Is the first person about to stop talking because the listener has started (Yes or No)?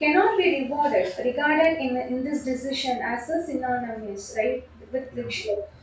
No